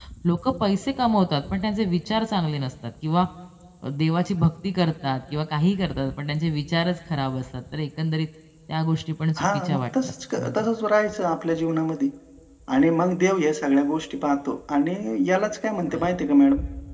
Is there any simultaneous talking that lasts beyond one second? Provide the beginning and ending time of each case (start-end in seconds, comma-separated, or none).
9.4-10.6